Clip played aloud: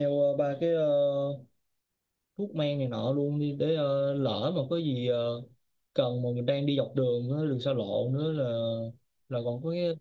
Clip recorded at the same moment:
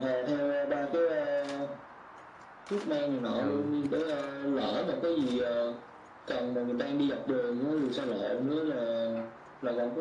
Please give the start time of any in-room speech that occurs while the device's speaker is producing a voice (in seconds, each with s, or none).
3.4 s